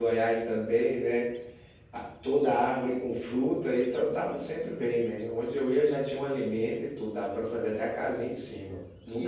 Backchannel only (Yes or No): Yes